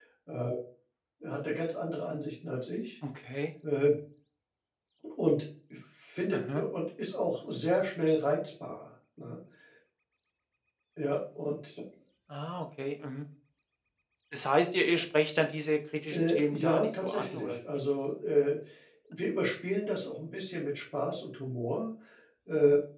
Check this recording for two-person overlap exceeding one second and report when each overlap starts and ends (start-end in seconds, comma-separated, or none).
16.1-17.6